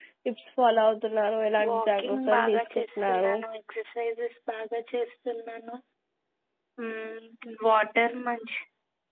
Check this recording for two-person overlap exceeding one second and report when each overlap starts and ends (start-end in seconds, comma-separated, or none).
1.7-3.3